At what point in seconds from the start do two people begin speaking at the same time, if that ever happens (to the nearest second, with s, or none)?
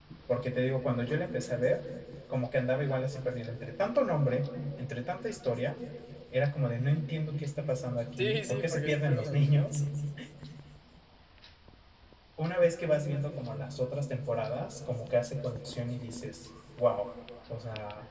8 s